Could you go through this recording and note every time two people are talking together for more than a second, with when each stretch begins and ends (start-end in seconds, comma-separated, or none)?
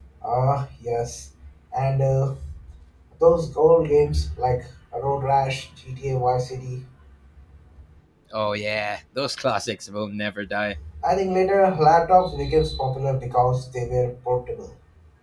none